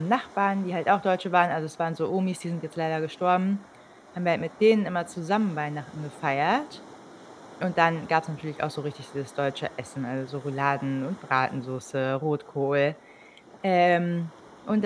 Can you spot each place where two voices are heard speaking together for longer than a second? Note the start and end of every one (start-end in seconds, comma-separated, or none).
none